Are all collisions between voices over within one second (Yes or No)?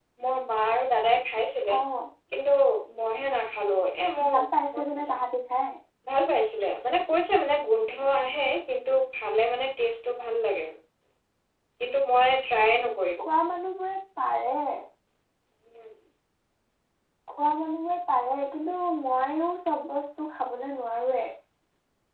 Yes